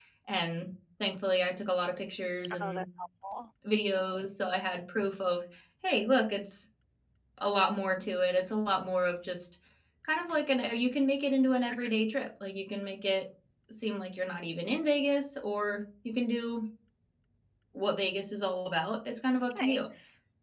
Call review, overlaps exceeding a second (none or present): none